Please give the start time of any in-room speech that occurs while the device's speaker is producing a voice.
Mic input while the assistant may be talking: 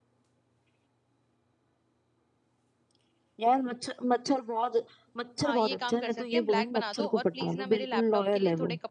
5.4 s

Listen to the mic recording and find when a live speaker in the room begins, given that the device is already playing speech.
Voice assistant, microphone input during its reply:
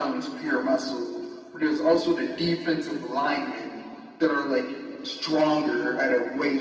none

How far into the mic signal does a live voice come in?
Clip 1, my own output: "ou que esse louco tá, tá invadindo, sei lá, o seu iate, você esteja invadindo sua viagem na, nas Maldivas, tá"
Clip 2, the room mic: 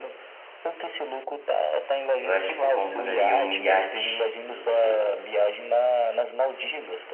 2.2 s

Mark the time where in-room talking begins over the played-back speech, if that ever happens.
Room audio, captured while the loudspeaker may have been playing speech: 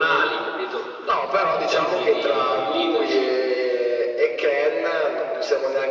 none

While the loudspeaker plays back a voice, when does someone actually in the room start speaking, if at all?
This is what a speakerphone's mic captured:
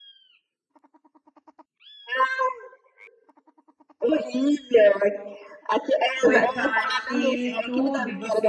6.2 s

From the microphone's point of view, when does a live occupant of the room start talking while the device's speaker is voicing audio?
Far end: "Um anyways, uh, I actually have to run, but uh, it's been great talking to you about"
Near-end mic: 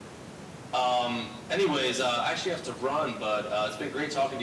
none

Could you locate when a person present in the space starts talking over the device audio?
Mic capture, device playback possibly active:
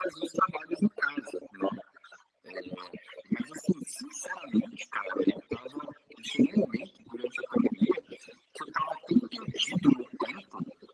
none

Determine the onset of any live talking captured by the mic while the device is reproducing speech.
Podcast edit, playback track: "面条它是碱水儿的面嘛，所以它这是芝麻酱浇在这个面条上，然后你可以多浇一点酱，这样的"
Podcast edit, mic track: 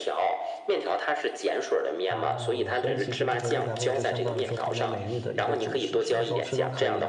2.1 s

